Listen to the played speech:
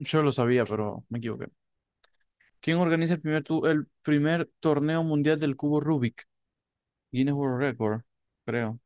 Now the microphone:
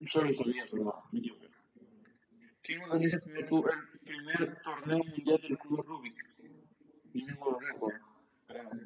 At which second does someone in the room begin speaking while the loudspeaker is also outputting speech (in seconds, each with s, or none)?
none